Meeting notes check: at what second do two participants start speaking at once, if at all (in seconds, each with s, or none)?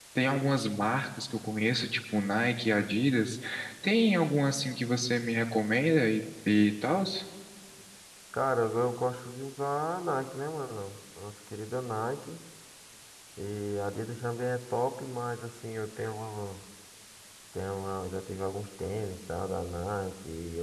none